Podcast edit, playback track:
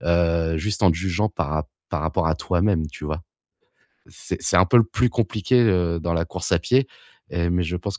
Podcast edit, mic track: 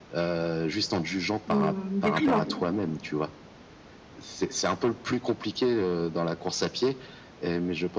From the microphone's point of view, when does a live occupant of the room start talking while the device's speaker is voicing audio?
1.5 s

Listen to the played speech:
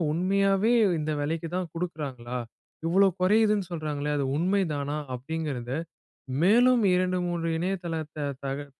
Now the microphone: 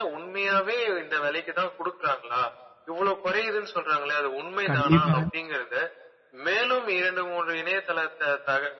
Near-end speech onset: 4.7 s

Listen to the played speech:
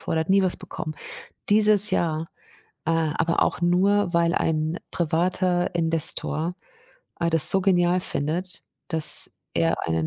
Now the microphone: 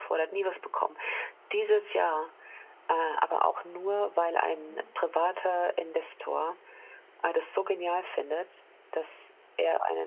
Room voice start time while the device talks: 4.5 s

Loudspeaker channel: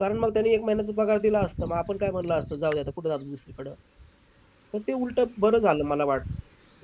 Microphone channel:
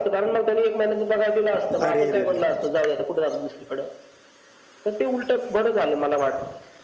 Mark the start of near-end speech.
1.9 s

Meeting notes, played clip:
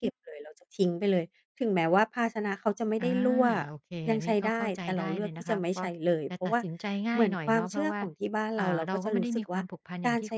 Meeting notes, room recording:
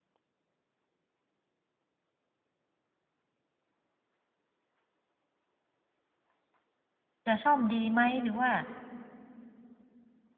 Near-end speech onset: 7.3 s

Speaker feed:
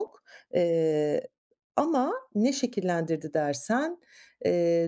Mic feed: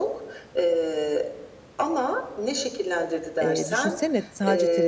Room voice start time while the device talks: 3.4 s

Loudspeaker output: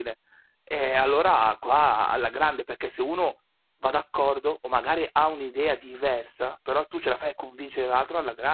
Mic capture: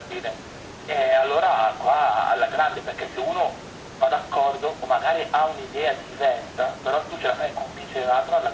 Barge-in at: none

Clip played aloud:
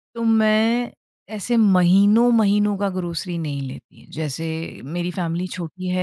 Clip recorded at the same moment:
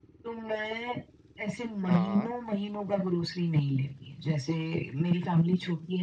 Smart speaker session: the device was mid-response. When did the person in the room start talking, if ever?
1.8 s

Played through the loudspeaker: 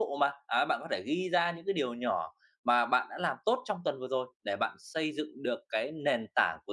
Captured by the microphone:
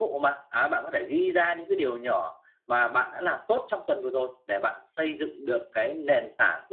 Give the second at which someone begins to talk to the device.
none

